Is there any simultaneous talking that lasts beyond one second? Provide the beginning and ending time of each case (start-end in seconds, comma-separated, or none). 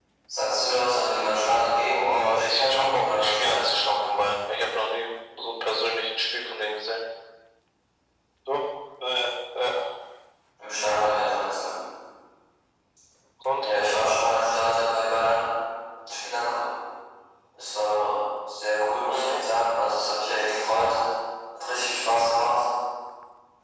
1.9-4.1